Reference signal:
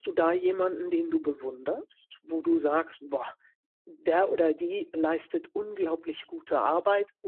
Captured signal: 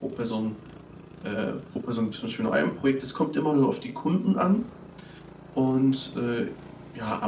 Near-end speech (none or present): present